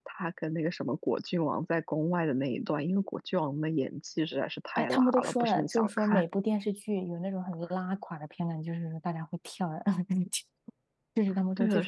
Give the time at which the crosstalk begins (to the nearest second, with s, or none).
5 s